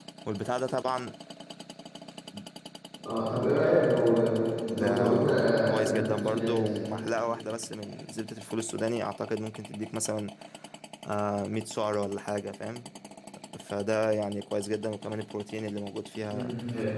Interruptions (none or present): present